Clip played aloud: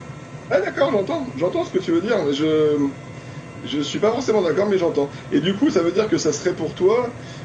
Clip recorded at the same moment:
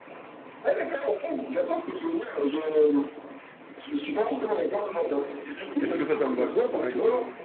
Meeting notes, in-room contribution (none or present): present